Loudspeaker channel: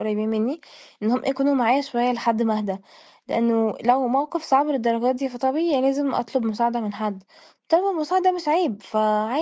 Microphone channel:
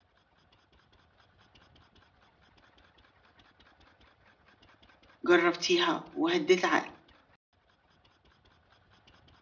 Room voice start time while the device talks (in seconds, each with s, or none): 5.3 s